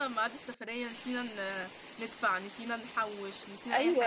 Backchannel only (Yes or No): No